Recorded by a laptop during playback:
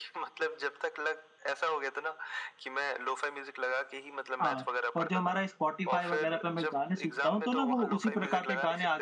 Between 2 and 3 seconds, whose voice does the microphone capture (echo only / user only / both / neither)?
echo only